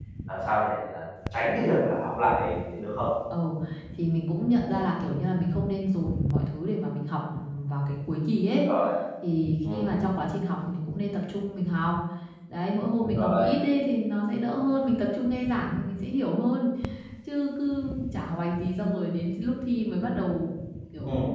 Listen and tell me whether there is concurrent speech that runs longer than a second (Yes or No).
No